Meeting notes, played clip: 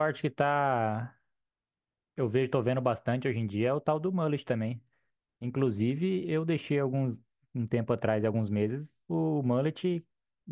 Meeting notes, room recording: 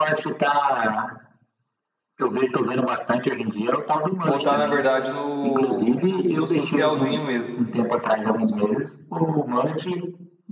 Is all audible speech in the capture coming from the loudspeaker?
No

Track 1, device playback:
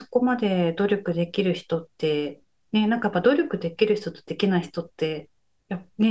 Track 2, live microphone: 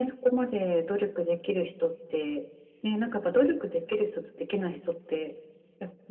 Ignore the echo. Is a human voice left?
No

